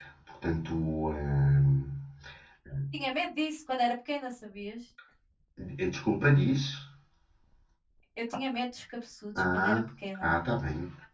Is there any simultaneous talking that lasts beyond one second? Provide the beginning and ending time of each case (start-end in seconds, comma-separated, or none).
none